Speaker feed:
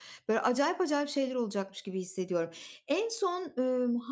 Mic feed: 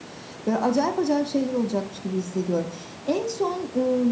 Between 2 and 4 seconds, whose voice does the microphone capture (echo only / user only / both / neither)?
echo only